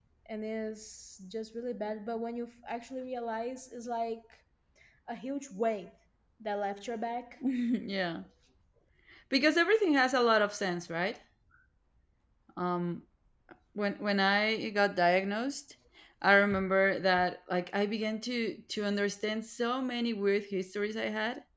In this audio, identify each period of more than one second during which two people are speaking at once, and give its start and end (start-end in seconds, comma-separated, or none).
none